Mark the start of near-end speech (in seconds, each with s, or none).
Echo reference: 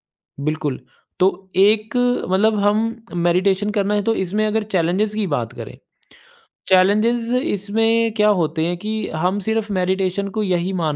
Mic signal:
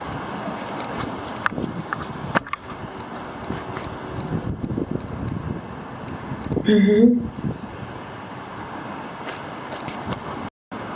6.7 s